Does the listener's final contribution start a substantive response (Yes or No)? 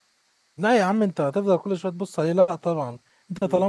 No